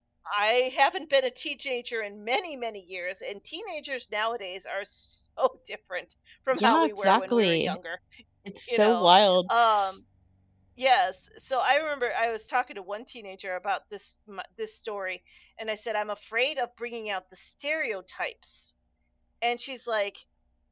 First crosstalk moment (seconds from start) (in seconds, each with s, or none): 6.6 s